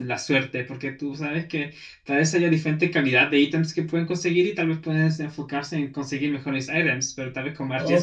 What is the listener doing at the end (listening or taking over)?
taking over